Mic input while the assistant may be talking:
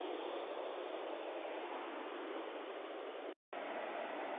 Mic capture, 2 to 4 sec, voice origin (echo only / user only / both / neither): neither